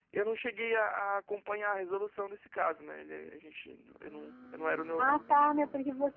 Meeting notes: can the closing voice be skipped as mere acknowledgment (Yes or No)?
No